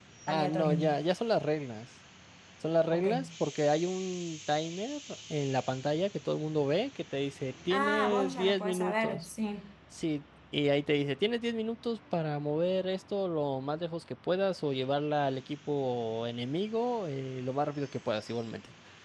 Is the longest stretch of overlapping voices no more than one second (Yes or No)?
No